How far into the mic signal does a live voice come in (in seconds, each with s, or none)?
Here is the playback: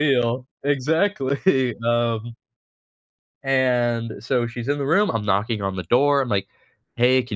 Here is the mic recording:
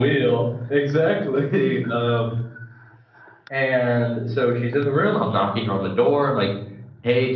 none